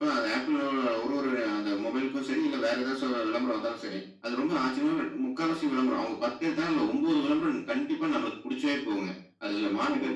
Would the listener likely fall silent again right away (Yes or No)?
Yes